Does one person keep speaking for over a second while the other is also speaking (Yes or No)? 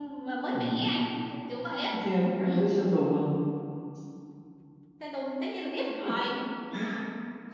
No